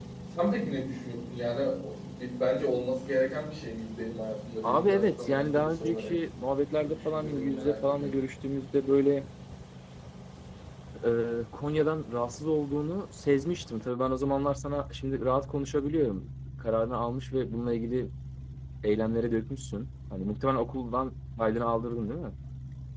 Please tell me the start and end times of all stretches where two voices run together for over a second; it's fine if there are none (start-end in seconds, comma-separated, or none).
4.6-6.1, 6.8-8.1